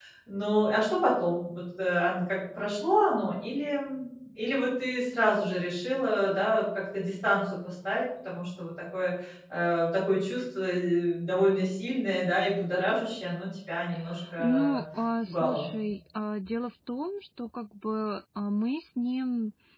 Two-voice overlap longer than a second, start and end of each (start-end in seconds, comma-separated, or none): none